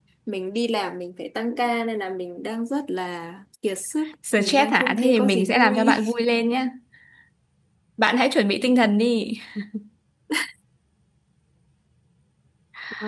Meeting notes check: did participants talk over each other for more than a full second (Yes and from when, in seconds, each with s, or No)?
Yes, from 4.2 s